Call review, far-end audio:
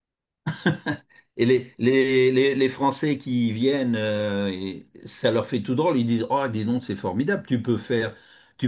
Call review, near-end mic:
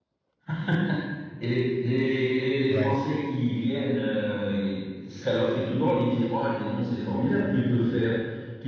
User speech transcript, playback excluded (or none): Ouais.